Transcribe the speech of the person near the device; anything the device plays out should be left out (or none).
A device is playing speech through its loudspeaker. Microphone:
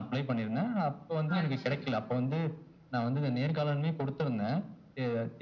ஆ சரி.